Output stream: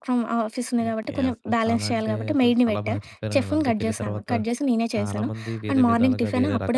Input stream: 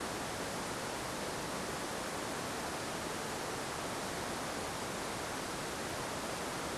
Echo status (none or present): none